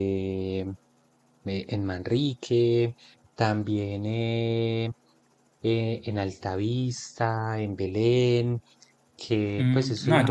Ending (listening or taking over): taking over